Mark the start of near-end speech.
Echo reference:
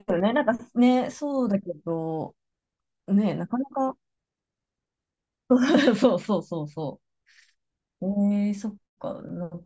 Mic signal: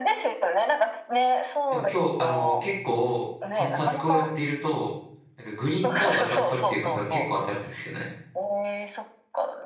1.7 s

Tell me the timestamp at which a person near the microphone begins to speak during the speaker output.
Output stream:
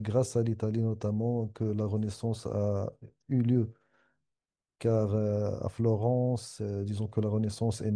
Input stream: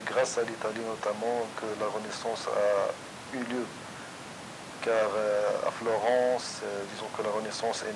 none

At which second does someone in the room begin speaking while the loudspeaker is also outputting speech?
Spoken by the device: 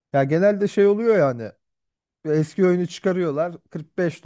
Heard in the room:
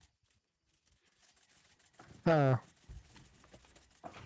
2.2 s

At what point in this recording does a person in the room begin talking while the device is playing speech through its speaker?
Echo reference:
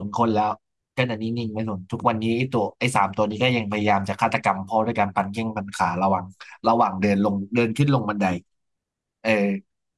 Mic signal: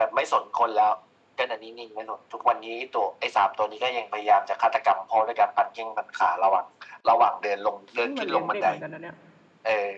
7.9 s

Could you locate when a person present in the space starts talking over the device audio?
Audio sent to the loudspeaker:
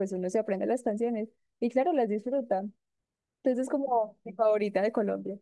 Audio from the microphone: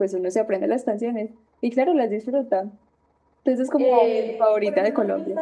3.8 s

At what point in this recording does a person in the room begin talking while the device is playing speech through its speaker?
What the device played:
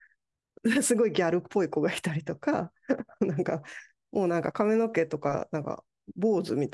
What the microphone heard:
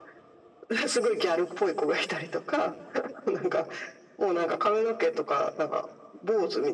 none

